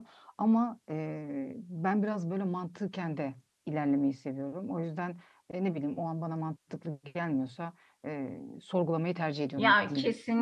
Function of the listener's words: taking over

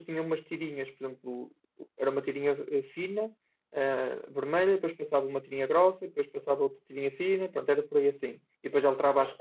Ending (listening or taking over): listening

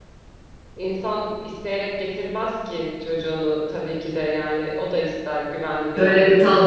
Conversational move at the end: taking over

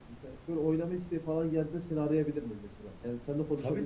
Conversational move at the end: taking over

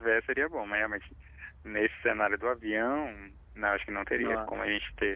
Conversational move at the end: listening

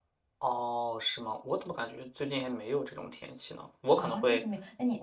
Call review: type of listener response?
taking over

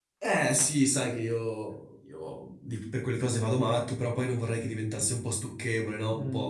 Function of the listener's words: taking over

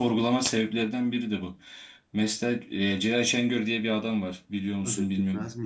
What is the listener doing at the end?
taking over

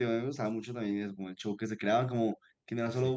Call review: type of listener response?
listening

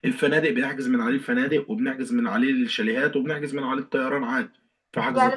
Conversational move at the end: taking over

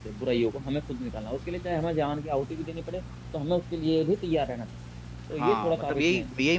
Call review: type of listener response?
taking over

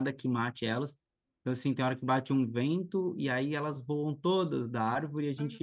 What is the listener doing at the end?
listening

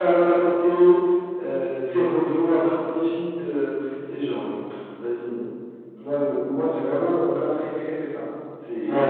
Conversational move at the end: taking over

